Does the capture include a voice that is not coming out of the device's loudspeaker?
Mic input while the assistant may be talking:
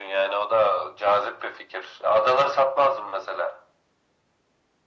No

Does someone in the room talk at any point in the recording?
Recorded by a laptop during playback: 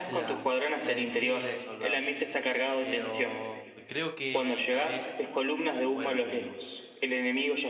Yes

